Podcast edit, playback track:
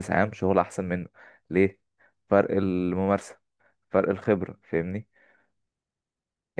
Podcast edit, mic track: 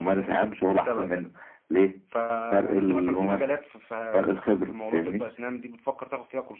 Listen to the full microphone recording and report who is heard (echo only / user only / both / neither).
both